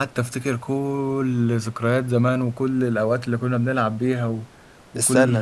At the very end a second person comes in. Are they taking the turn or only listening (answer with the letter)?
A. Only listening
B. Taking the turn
A